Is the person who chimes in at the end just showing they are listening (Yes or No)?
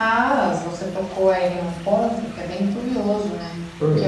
Yes